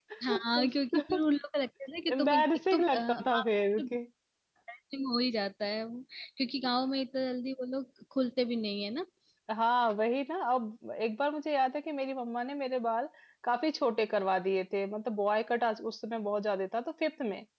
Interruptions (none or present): present